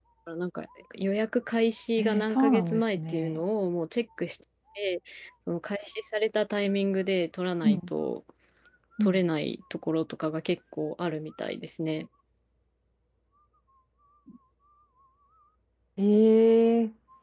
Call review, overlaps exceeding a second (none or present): present